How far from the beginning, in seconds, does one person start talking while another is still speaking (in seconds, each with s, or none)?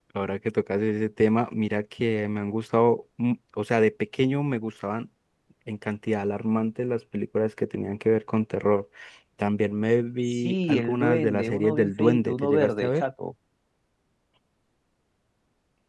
10.3 s